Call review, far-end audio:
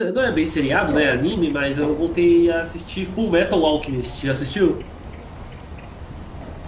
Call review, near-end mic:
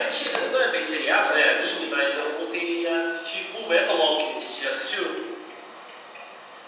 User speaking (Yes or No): No